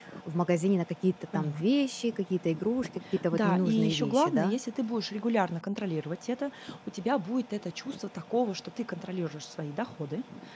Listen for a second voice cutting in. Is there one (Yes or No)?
Yes